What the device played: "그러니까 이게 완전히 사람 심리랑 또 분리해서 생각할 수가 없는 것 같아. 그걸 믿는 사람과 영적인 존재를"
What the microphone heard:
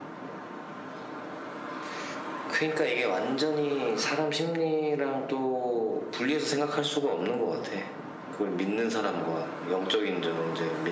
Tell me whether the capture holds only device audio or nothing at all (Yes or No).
Yes